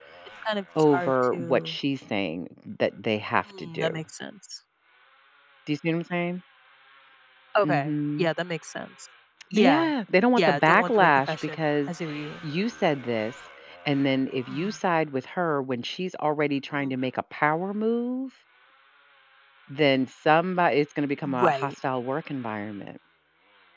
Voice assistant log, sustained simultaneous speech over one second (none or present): present